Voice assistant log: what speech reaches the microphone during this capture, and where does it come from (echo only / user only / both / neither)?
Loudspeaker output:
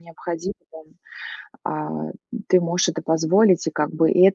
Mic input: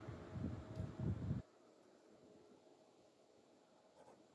neither